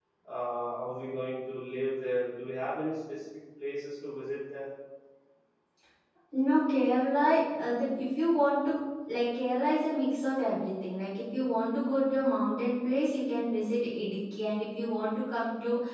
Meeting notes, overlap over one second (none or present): none